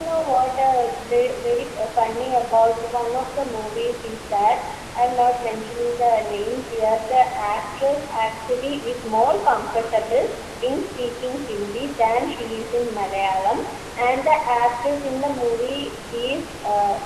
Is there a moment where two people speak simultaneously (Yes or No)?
No